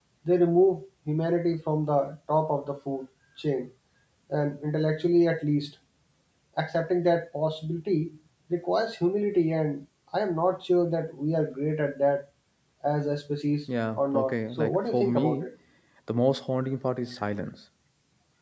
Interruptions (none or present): present